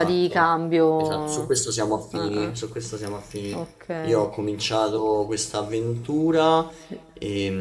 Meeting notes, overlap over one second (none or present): none